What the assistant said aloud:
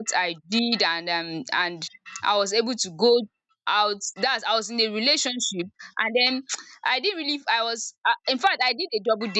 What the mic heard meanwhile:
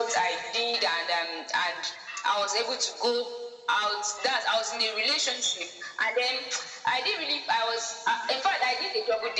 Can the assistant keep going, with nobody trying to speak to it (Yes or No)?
Yes